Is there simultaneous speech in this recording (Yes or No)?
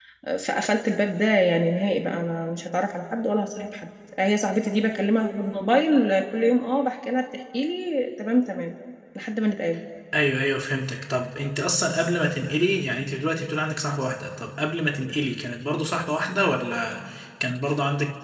No